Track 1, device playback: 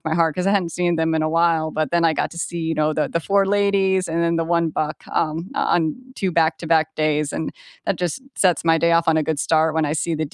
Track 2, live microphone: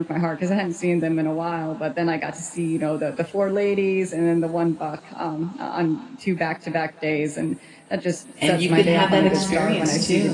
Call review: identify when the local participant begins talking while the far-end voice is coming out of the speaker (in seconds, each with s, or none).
8.4 s